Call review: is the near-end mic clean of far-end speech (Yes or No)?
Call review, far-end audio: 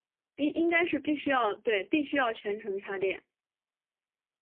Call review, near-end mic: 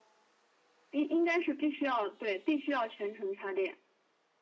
No